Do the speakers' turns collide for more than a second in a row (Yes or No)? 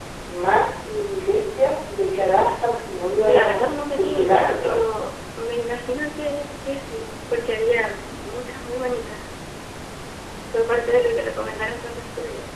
Yes